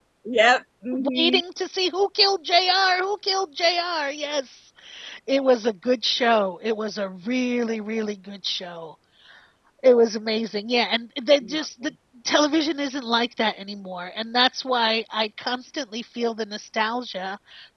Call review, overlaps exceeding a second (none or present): none